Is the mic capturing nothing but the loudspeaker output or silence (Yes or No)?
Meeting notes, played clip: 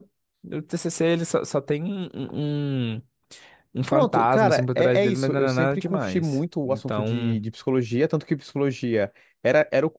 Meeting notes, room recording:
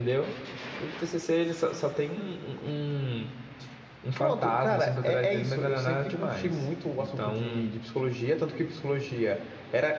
Yes